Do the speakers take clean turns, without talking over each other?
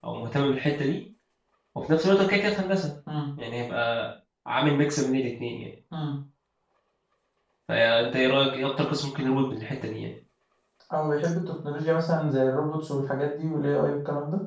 Yes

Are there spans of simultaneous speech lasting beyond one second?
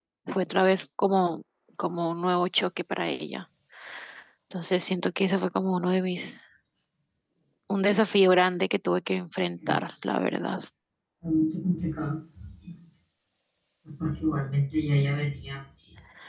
No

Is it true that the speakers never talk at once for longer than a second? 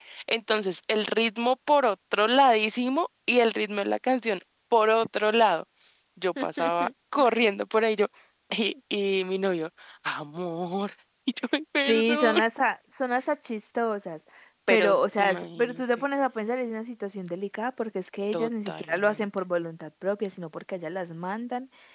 No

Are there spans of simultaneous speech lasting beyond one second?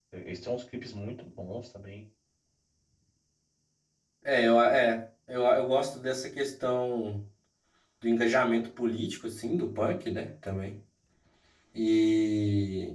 No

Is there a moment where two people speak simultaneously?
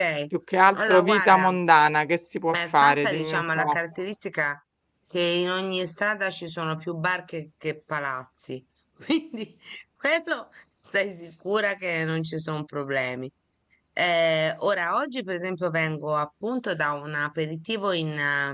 Yes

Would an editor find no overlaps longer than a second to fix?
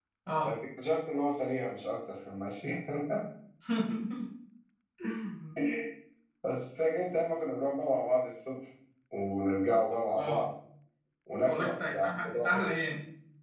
No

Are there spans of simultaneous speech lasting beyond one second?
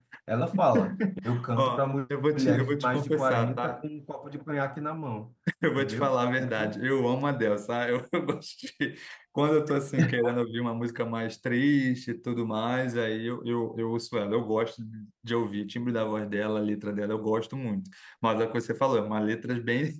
Yes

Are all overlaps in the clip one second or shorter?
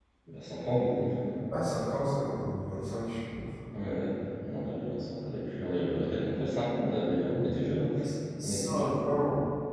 Yes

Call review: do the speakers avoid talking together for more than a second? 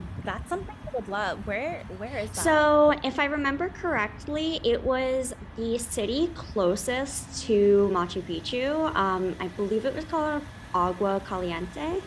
Yes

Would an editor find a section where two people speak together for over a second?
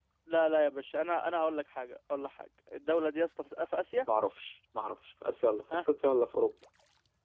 No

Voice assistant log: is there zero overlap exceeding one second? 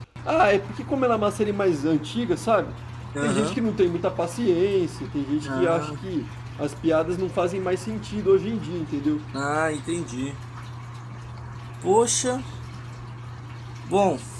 Yes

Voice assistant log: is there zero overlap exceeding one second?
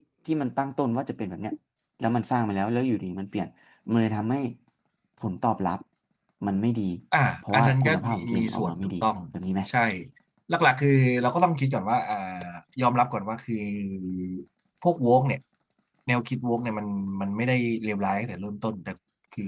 No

